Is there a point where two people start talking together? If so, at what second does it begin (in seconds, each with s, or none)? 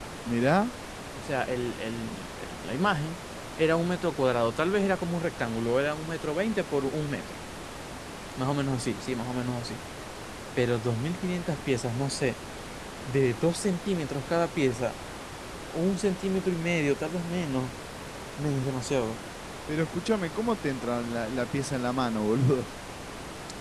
none